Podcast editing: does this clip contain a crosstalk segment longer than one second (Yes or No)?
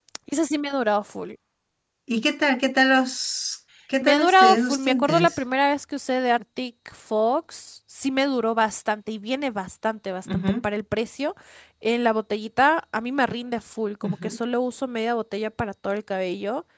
Yes